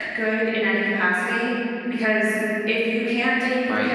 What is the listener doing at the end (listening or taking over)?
listening